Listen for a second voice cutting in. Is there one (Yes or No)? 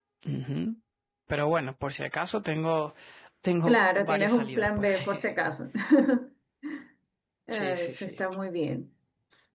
Yes